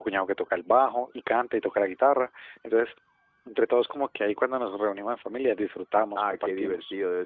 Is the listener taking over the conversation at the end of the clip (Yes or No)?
Yes